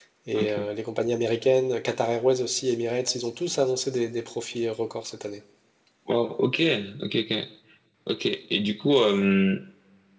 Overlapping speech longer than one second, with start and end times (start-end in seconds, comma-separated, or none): none